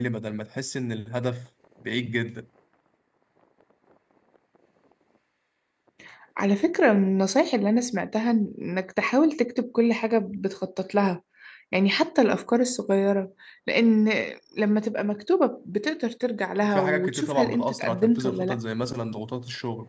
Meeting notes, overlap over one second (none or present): present